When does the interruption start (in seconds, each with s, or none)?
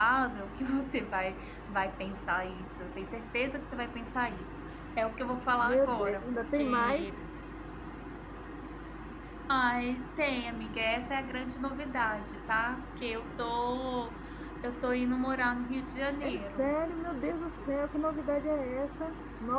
5.6 s